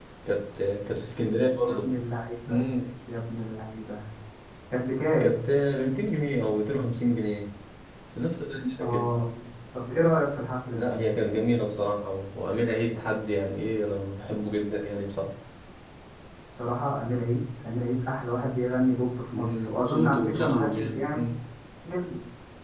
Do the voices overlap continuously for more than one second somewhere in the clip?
Yes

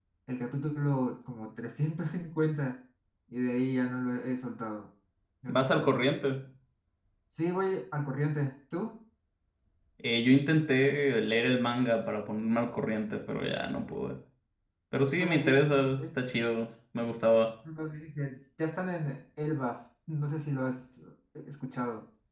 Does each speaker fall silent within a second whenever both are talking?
No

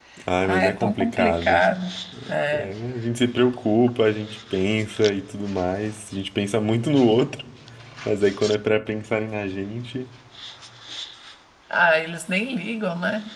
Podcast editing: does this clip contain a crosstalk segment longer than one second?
Yes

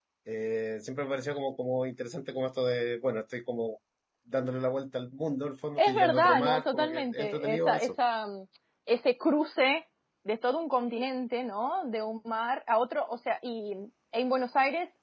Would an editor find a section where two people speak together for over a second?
Yes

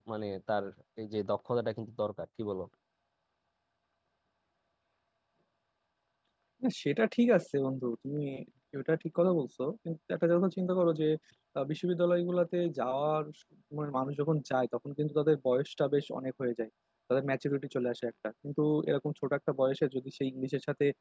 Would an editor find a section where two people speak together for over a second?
No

